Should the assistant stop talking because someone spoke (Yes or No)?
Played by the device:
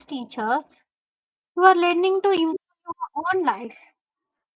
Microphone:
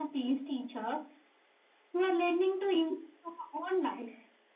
No